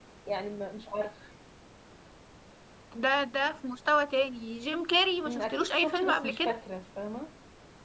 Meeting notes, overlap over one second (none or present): present